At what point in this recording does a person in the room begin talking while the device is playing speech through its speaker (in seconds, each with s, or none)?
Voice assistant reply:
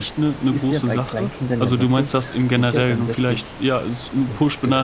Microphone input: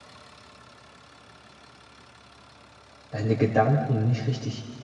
3.1 s